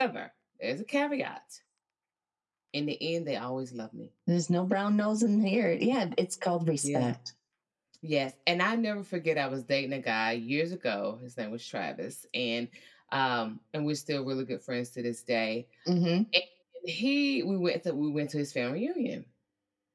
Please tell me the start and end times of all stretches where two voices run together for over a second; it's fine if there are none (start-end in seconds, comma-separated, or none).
none